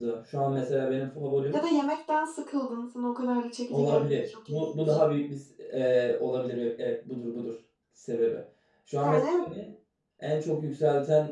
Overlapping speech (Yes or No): Yes